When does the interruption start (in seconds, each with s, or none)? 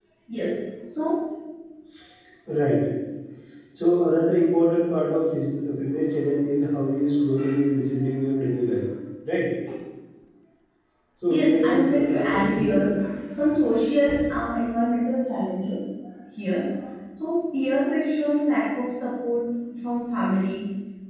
11.3 s